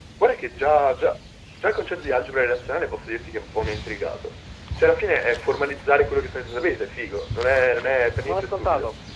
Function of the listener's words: taking over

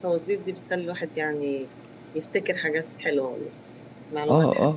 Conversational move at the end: taking over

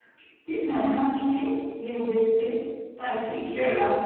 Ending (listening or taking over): listening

